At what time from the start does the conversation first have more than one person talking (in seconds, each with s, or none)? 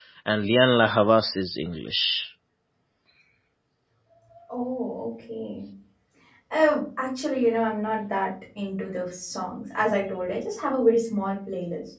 none